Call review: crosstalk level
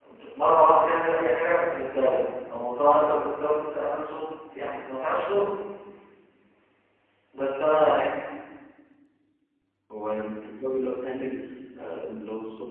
none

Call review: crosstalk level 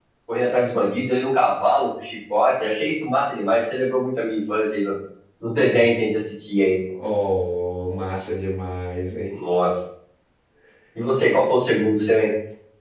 none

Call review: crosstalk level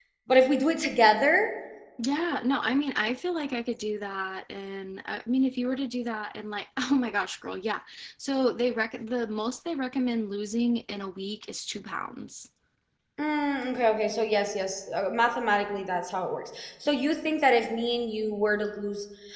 none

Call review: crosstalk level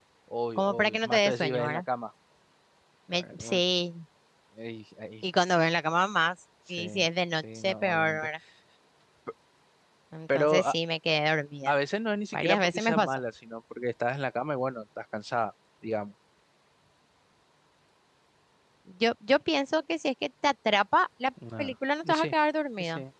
present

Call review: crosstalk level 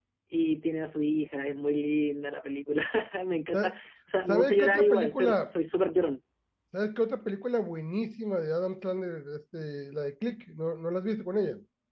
present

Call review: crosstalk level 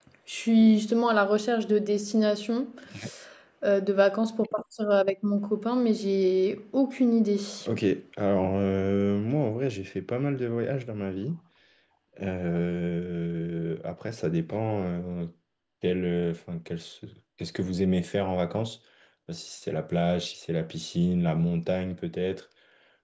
none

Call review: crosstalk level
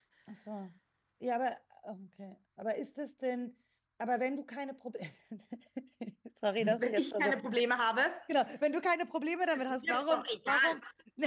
present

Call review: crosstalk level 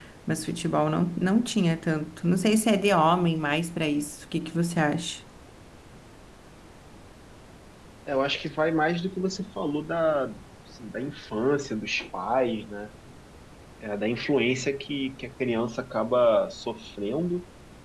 none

